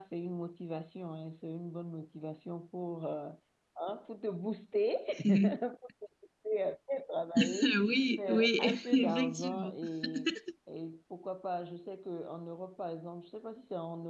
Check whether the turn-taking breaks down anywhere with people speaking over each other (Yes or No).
Yes